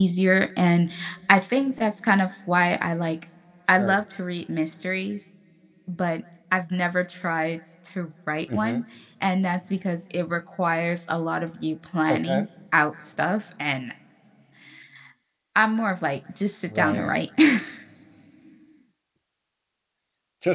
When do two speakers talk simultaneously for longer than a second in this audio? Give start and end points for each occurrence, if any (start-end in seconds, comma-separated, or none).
none